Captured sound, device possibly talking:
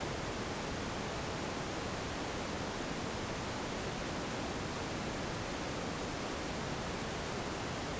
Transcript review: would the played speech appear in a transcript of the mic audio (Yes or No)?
No